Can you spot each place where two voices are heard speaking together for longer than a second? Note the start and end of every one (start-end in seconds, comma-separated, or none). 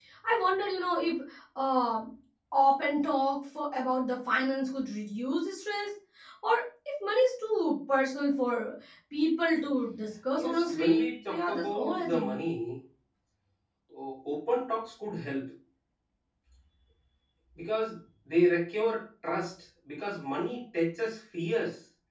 10.4-12.4